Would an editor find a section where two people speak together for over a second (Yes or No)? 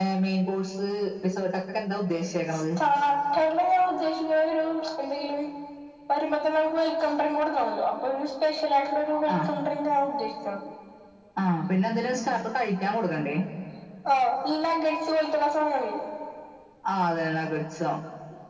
No